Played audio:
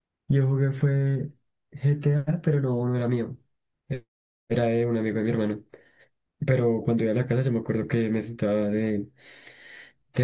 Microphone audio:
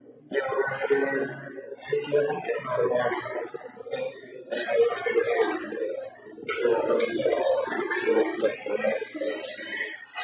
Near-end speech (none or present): none